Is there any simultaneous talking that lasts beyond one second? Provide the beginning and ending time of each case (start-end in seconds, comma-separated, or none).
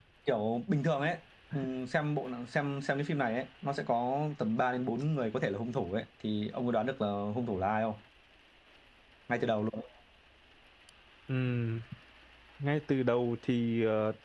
none